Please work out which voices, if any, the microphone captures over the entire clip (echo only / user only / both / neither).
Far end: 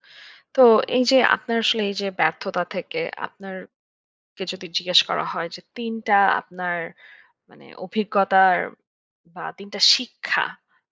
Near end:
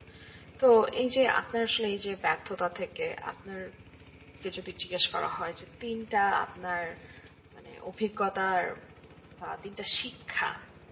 echo only